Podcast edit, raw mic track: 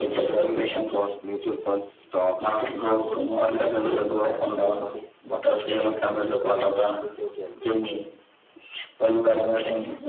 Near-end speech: present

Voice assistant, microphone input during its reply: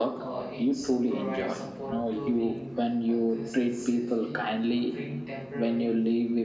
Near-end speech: present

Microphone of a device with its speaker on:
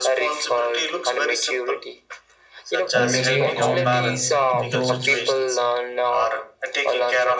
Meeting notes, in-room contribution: present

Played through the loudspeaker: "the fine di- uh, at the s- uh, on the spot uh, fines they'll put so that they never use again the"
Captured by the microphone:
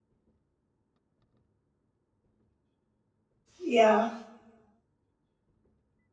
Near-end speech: present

